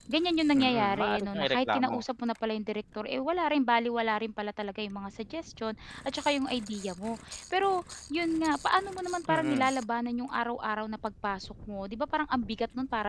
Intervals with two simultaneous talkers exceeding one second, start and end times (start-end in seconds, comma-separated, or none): 0.6-2.0